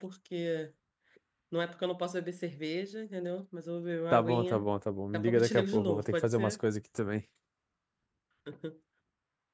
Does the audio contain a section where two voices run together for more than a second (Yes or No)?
Yes